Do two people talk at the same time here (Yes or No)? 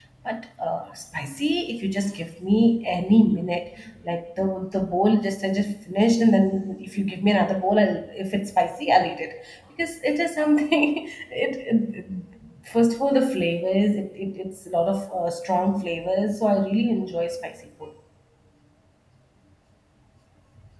No